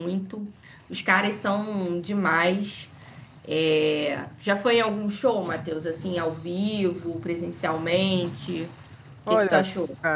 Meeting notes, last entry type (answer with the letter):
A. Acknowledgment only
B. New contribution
B